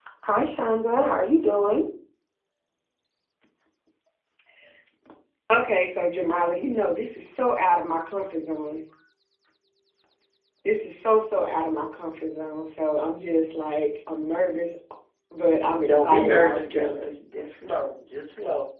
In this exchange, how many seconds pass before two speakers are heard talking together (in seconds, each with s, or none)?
15.8 s